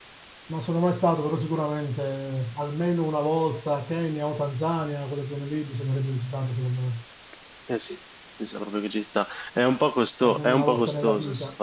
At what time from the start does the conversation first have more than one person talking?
10.2 s

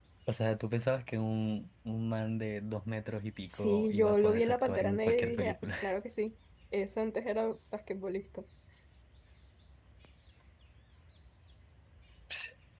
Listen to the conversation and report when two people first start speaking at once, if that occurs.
3.5 s

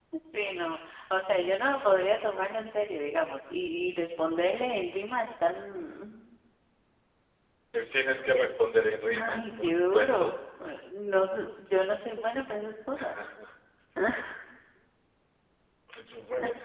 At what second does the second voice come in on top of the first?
9.1 s

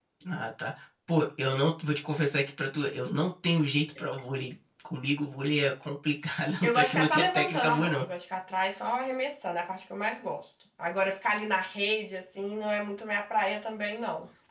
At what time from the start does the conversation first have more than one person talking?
6.6 s

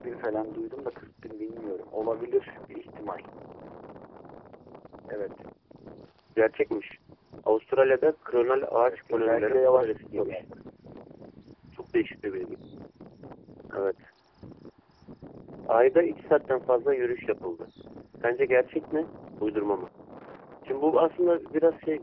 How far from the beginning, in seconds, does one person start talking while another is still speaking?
8.8 s

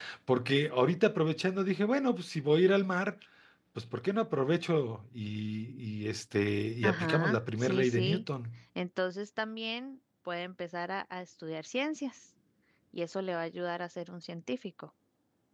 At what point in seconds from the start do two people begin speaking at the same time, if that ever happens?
6.8 s

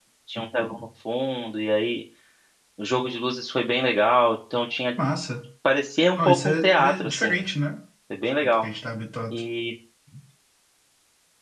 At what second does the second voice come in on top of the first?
6.1 s

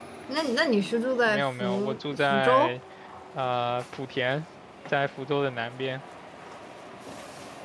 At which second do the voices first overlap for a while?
1.3 s

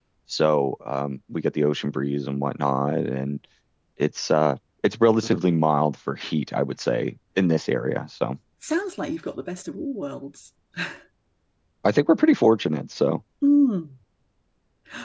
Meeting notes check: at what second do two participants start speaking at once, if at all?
none

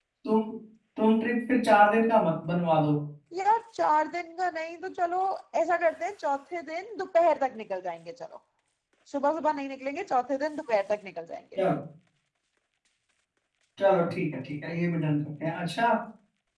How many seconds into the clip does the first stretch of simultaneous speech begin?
none

